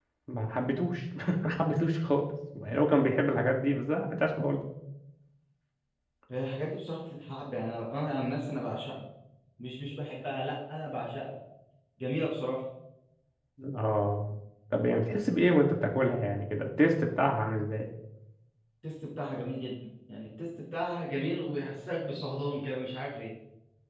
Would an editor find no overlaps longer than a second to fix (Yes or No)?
Yes